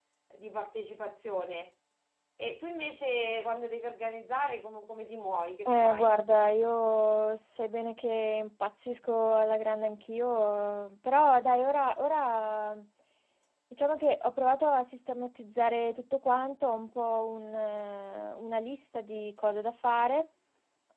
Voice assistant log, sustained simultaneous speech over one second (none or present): none